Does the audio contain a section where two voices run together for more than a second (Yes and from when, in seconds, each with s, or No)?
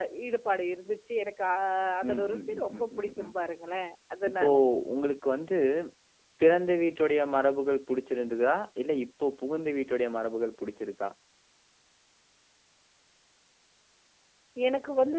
Yes, from 2.1 s